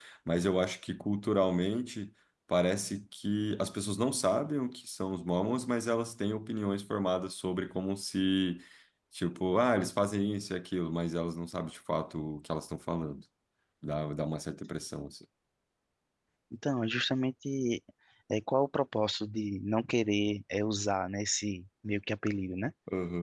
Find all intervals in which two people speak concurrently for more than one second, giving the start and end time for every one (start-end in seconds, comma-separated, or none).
none